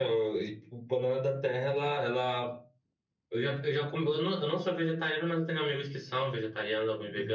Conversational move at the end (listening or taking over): listening